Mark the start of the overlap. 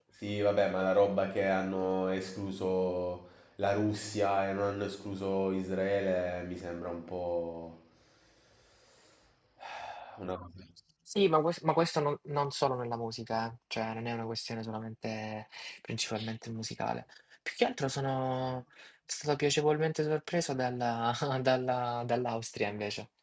none

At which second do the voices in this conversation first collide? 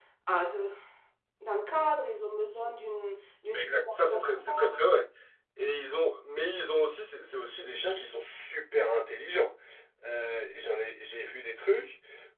3.5 s

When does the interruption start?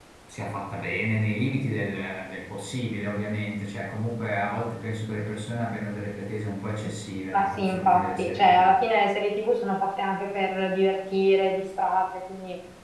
7.3 s

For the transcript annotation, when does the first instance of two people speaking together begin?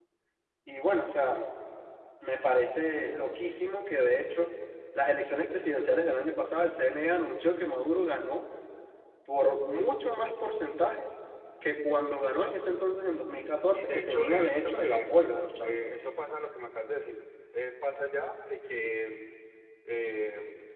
13.7 s

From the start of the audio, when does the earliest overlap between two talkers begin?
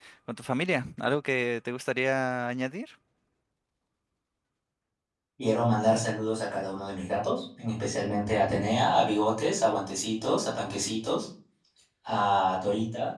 none

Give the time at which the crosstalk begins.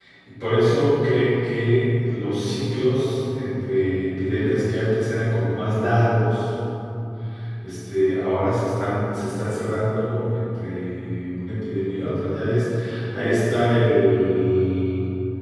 none

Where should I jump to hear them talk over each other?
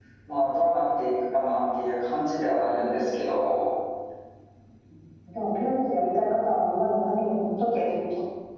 none

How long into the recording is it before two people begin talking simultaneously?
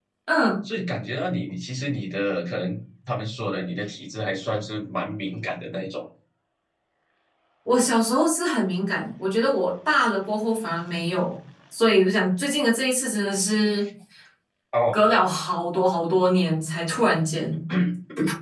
none

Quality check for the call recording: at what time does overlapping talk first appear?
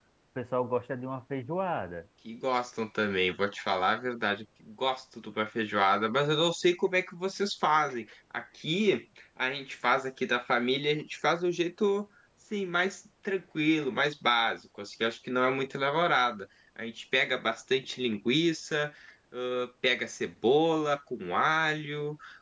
none

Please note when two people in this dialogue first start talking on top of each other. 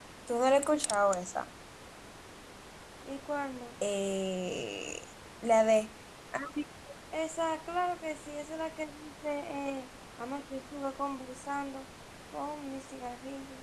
none

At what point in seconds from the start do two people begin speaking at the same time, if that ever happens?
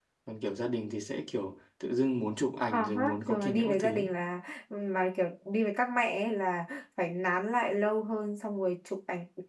2.7 s

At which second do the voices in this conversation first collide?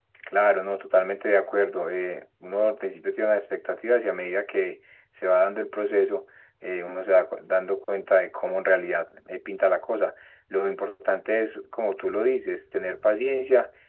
none

